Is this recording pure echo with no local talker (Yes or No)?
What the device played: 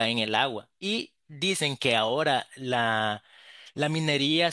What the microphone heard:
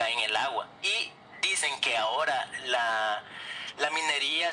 Yes